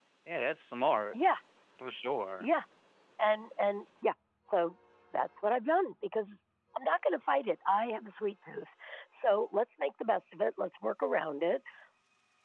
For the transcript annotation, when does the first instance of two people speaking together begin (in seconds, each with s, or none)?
none